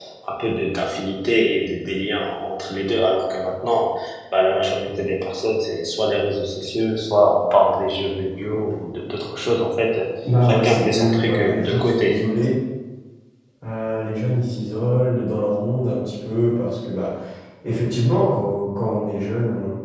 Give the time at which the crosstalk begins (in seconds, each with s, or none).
10.4 s